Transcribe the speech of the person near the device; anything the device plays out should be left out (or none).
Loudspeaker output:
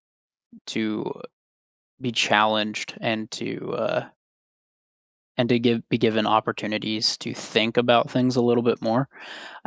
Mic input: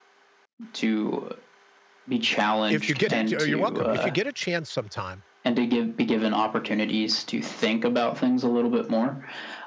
If you get it oh, you're welcome. If you get a chance sometime,